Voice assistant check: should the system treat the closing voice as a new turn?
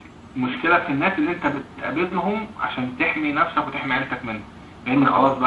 No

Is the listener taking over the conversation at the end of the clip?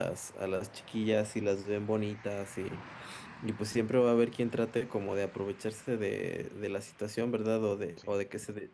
No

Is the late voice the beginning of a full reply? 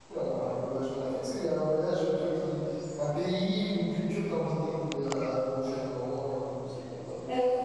Yes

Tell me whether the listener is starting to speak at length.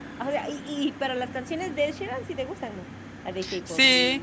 Yes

